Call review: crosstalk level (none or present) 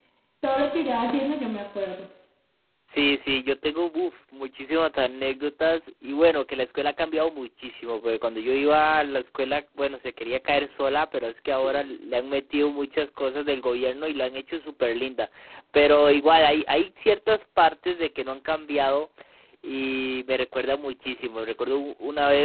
none